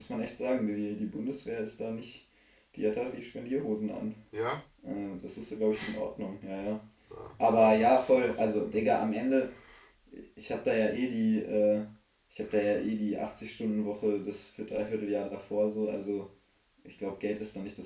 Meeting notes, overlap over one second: present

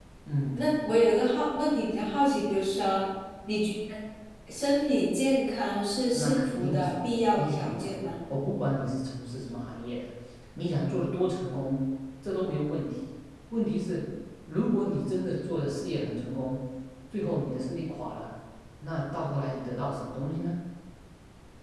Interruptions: present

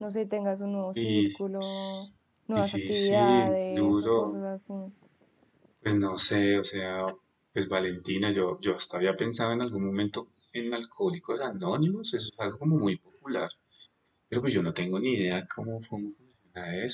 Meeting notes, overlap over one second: present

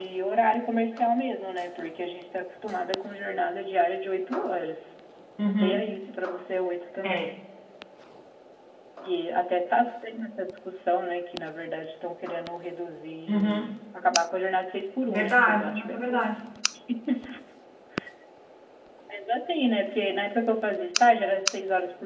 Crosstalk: present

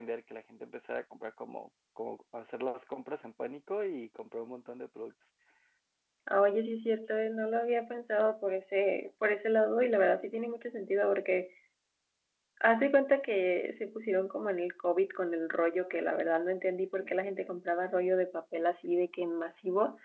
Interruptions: none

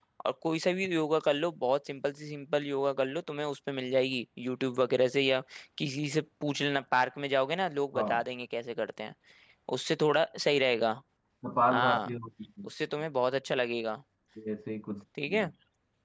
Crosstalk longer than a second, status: none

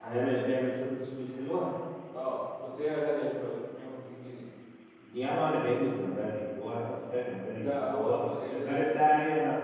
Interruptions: present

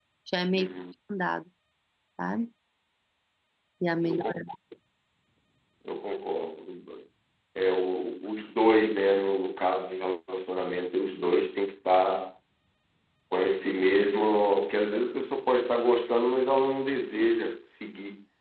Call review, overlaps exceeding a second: none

